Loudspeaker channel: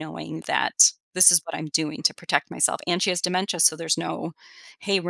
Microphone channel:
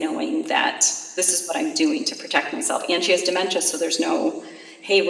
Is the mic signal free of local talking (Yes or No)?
Yes